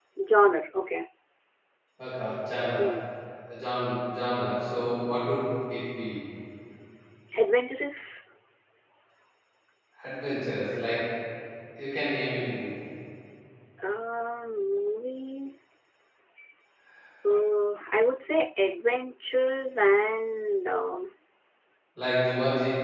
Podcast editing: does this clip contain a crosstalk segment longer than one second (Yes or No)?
No